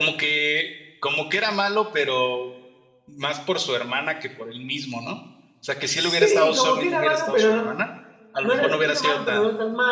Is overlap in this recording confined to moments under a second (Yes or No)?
No